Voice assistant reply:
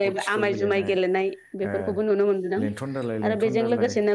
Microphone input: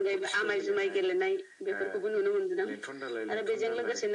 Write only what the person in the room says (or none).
none